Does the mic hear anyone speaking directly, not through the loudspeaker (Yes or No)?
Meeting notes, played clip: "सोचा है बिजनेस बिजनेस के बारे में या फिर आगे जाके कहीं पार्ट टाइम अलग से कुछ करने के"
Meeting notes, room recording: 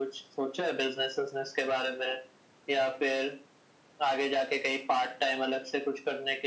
No